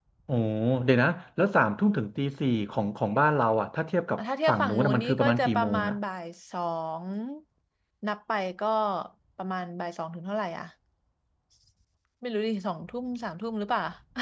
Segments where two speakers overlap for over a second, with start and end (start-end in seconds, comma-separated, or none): 4.5-6.0